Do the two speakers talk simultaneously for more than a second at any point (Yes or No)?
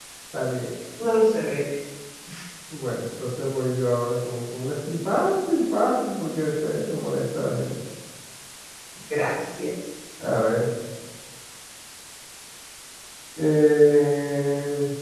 No